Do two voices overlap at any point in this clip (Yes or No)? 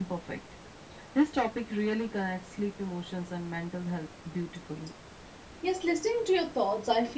No